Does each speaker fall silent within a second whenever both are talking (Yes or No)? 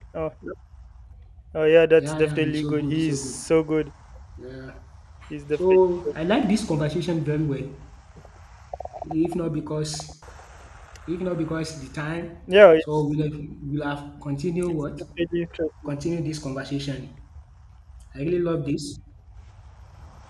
No